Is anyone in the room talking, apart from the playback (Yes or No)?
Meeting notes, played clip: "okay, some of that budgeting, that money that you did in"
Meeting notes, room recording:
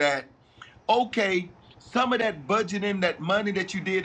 No